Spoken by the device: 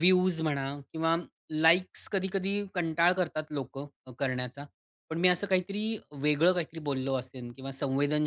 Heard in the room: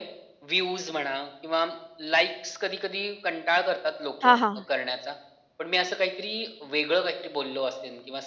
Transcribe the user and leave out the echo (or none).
हां, हां.